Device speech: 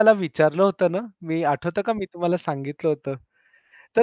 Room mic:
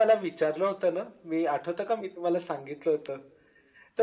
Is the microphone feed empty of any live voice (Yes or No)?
Yes